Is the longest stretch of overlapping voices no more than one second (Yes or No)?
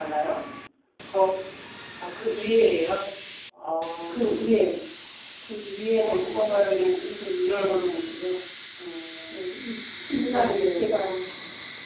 No